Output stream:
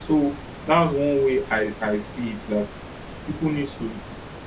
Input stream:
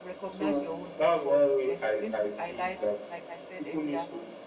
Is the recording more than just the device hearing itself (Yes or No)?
Yes